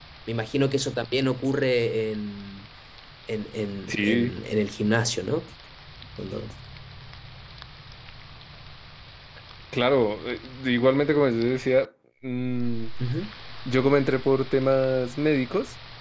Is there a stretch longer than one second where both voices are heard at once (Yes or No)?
No